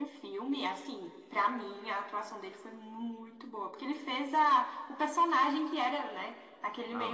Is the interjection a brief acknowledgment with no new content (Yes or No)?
Yes